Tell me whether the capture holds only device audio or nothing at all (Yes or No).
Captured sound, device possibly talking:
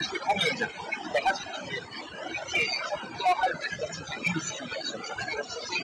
Yes